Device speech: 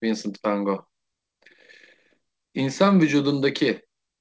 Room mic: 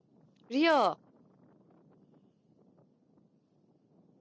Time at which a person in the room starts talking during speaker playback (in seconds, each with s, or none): 0.5 s